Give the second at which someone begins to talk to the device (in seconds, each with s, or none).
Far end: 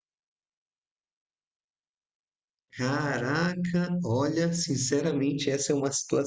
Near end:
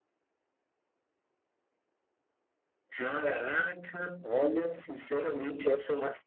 none